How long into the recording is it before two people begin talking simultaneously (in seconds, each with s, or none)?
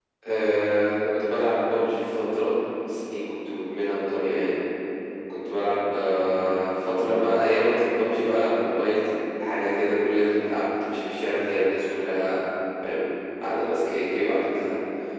none